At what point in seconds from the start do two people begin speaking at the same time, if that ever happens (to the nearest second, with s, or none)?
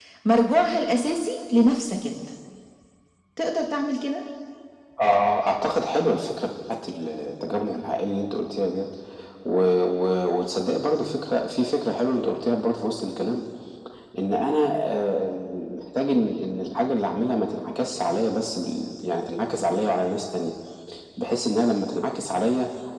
none